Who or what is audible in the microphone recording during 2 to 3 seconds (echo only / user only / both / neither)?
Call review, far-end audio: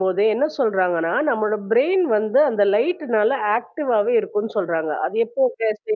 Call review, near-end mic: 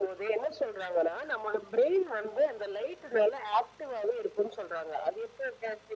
echo only